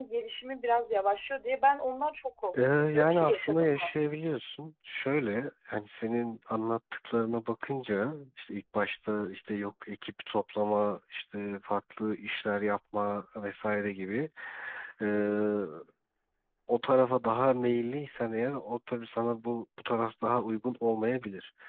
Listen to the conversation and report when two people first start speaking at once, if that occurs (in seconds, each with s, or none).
2.5 s